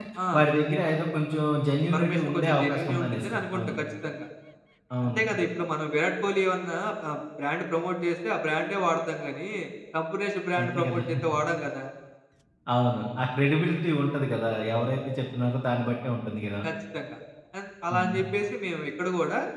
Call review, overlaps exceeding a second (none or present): present